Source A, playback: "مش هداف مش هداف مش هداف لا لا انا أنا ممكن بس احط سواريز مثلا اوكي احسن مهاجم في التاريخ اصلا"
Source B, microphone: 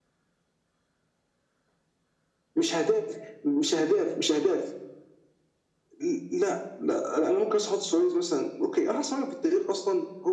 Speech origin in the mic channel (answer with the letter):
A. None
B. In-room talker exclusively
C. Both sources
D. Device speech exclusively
D